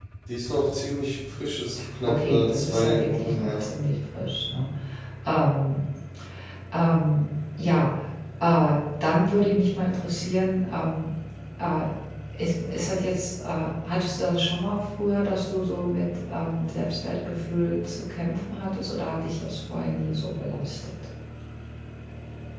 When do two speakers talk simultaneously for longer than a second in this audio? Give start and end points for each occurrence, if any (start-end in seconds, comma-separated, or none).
2.0-3.6